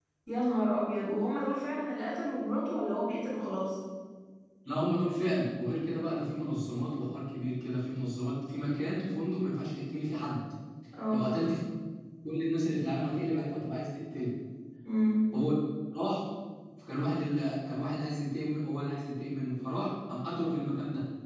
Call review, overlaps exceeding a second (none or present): none